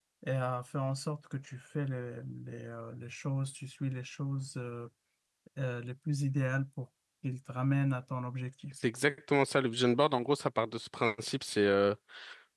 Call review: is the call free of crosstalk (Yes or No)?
Yes